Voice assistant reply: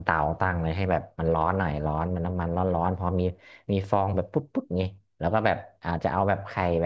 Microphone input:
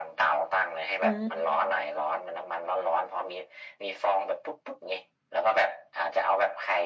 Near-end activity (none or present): present